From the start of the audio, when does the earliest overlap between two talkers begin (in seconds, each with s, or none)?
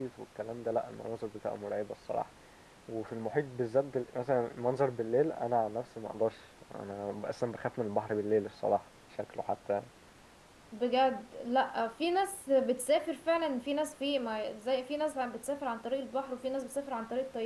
none